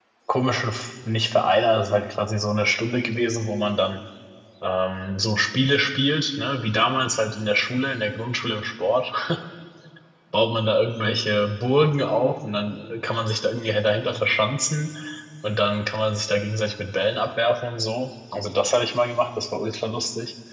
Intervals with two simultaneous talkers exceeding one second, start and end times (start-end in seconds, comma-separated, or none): none